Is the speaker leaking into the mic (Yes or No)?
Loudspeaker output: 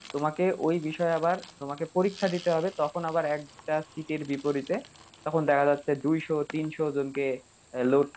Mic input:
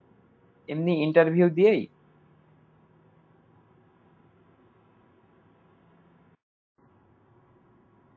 No